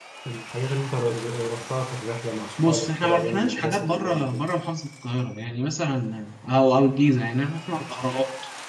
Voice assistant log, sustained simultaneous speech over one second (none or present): present